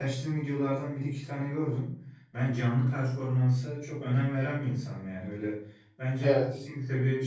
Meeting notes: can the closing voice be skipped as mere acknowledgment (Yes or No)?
Yes